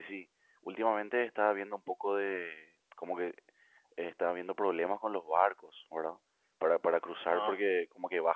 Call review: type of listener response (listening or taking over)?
listening